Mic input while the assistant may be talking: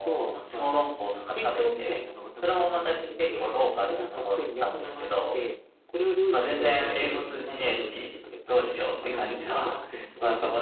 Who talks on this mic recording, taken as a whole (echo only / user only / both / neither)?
both